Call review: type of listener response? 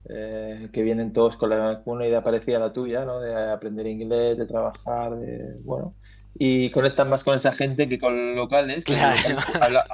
listening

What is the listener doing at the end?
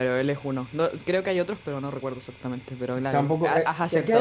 taking over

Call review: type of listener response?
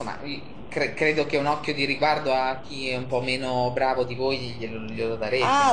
taking over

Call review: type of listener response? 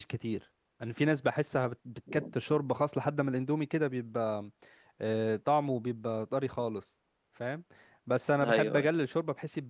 listening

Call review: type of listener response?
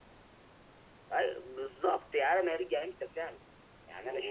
taking over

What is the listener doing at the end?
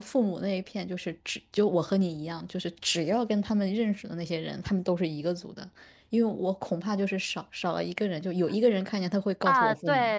taking over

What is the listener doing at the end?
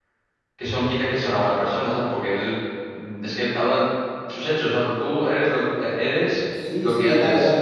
taking over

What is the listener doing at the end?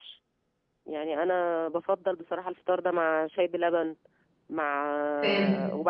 listening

